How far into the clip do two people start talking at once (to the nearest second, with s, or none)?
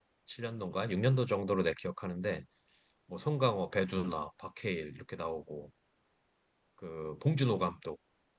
none